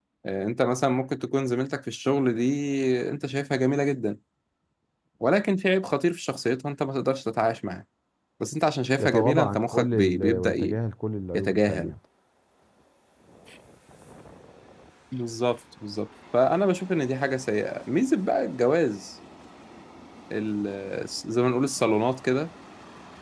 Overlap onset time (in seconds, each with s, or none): 9.0 s